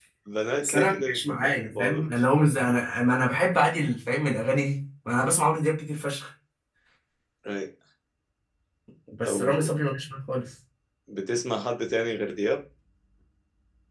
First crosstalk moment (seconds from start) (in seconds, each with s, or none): 0.6 s